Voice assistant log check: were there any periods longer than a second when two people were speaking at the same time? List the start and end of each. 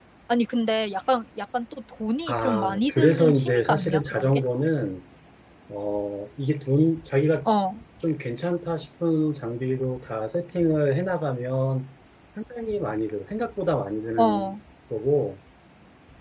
2.3-4.4

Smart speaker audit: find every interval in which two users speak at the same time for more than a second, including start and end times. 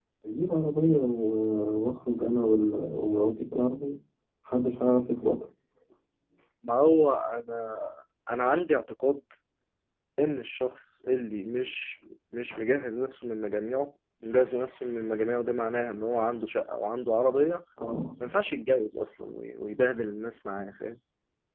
none

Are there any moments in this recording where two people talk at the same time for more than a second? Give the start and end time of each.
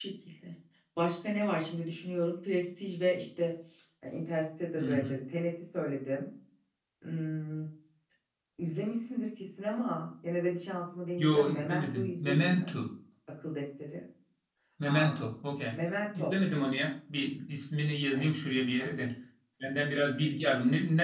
11.2-12.7

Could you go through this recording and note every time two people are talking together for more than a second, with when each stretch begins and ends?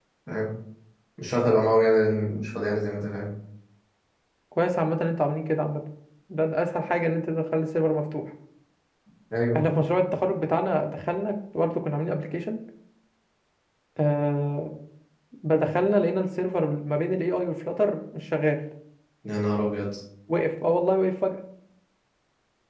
none

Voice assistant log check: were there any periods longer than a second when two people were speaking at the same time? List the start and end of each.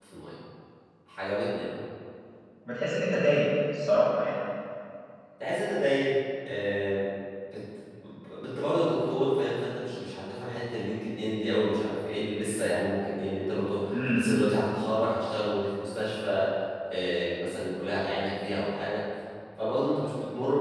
none

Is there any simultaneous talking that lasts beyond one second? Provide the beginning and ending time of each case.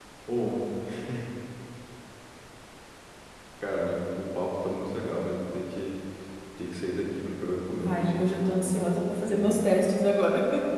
7.7-9.7

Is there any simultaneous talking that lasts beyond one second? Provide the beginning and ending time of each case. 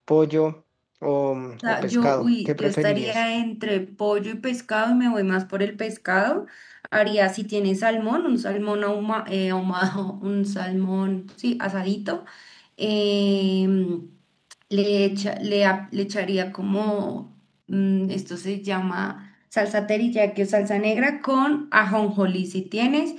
1.6-3.2

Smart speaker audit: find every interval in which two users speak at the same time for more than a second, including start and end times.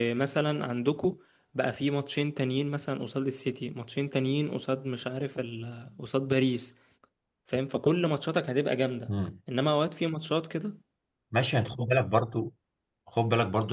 none

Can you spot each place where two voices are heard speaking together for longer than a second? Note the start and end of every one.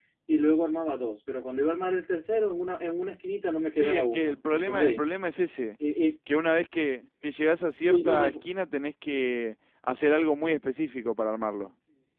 3.8-5.0

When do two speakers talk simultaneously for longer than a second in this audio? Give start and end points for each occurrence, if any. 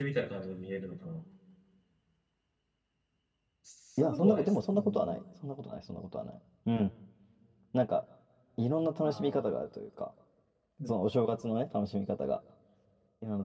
4.0-5.2

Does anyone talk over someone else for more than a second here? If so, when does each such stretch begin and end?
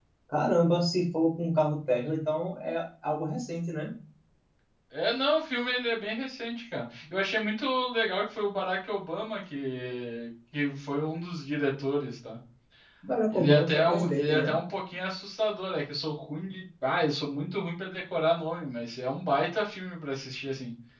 13.3-14.5

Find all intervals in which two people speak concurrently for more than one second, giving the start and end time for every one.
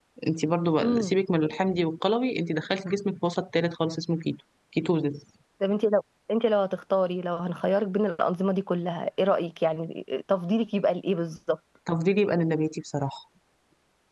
none

